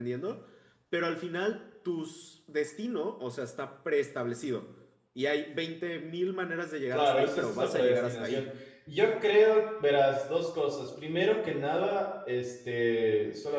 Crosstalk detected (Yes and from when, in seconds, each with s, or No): Yes, from 6.9 s